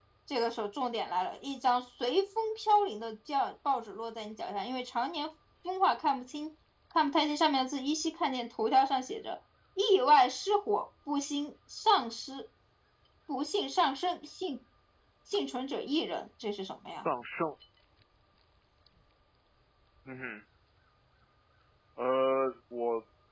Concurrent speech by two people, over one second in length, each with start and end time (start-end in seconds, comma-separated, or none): none